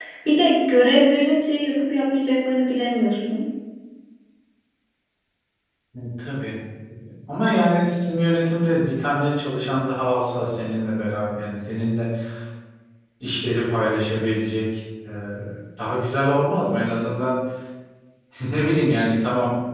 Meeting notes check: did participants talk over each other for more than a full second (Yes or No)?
No